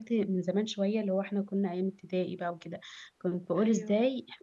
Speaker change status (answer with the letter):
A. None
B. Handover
A